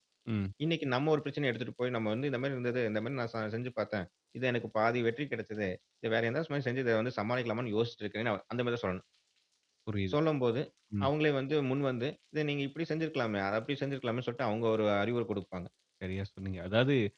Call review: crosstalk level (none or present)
none